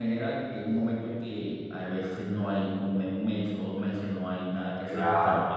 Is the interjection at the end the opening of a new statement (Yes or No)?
Yes